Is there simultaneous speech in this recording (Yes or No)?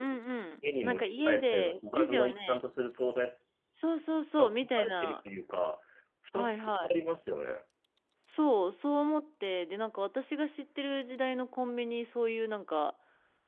Yes